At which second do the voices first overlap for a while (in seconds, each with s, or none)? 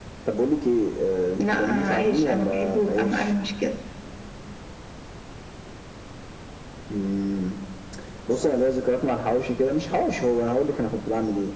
1.4 s